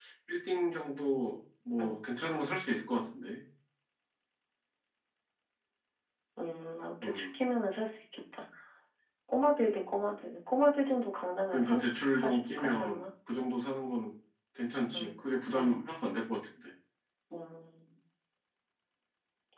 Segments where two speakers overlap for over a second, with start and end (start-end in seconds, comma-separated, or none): 11.5-13.0